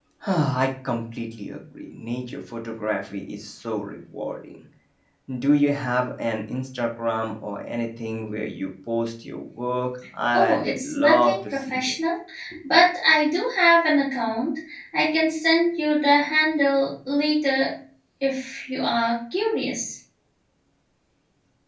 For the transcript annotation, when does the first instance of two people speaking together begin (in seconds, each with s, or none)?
10.3 s